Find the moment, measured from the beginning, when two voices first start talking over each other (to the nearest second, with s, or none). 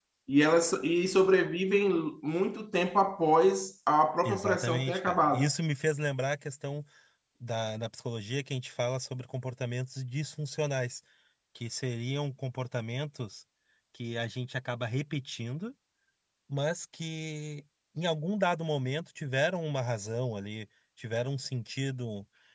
4 s